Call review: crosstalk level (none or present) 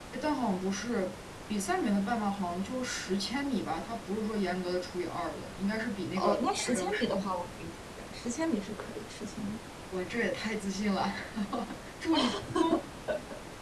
present